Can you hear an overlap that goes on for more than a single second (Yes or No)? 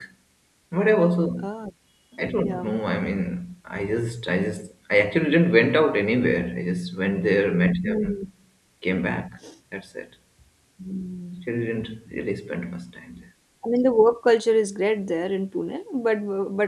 No